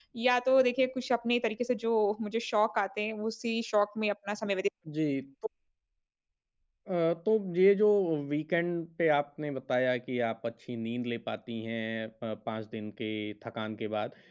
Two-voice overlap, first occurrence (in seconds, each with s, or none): none